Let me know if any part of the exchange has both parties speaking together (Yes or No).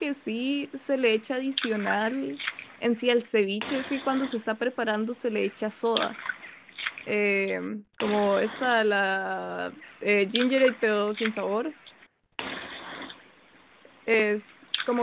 No